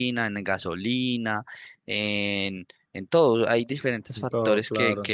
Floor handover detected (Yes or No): No